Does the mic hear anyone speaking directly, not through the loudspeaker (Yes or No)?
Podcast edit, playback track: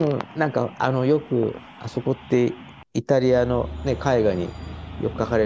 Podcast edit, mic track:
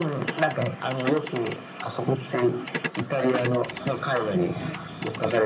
No